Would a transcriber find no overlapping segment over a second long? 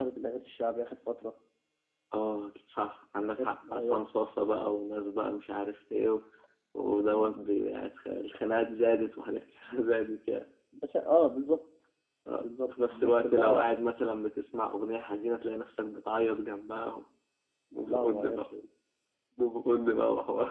No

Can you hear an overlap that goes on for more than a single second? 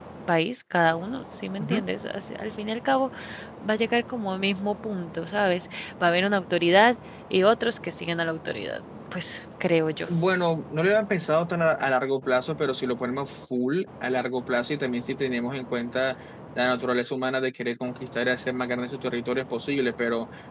No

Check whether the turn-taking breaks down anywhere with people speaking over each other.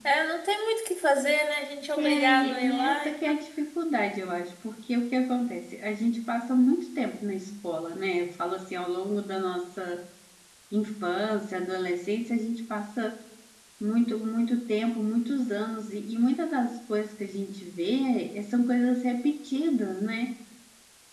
Yes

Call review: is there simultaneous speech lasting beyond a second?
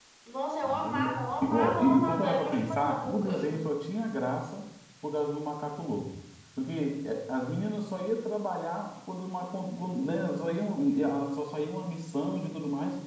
Yes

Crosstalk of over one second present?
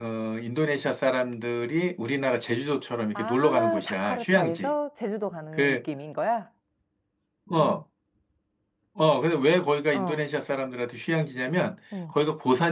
Yes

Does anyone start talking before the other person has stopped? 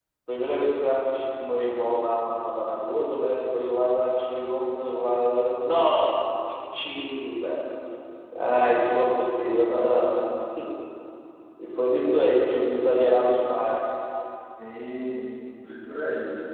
No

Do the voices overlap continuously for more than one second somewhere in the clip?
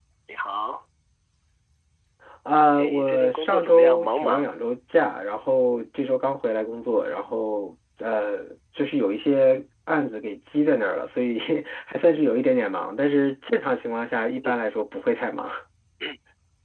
Yes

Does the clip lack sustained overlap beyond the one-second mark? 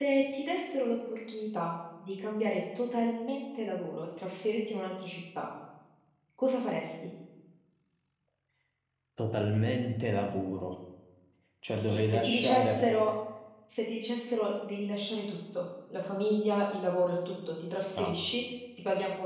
No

